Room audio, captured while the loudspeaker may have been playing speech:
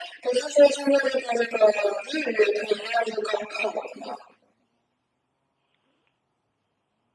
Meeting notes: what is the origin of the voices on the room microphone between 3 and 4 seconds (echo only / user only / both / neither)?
echo only